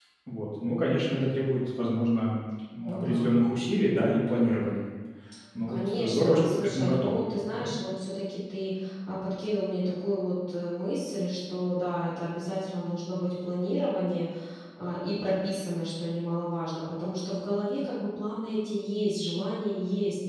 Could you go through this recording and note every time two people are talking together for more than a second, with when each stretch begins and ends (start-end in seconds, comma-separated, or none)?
5.7-7.7